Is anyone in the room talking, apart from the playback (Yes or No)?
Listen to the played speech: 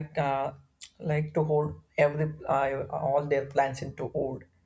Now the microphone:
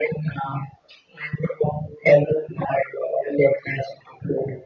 No